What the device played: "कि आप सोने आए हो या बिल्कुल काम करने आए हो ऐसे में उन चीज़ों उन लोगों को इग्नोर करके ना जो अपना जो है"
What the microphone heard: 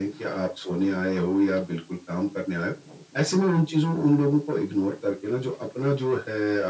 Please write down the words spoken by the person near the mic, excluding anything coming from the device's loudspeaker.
none

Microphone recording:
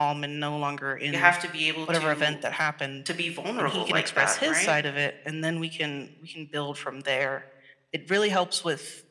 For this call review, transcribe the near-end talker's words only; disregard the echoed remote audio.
you have to be able to to be vulnerable like that right

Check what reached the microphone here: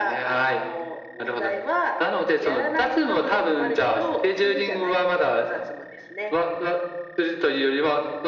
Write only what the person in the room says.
none

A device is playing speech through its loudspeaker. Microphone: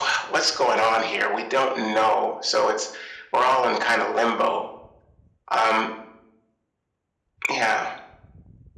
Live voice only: none

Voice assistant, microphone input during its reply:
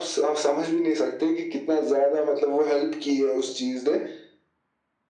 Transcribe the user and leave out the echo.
none

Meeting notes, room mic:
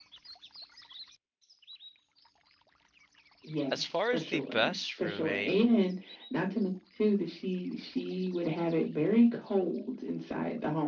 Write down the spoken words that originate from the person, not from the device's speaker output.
as far as the best roommate,

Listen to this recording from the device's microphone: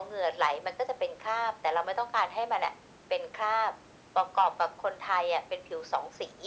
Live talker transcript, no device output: none

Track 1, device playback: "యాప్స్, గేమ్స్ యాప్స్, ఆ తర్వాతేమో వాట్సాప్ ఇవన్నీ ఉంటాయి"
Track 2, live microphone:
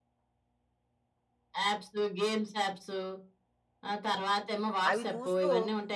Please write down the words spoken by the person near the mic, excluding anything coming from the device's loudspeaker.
అవి చూస్తూ

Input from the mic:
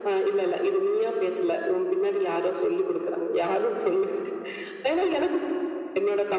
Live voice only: none

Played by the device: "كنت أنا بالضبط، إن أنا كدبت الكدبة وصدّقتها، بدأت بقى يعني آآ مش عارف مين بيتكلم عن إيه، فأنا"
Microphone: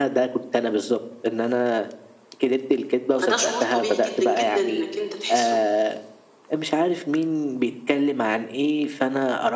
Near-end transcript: فده شعور طبيعي جدًا، جدًا إنك أنت تحسّه.

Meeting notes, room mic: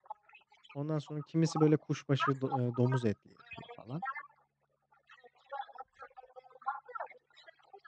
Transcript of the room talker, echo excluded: Ondan sonra kimisi, böyle, kuşbaşı do eee, domuz etli yapıyor falan.

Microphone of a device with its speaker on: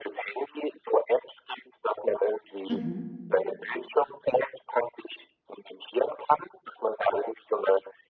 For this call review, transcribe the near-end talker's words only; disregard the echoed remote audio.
Mhm,

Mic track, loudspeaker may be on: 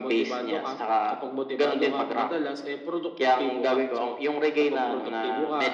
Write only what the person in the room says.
none

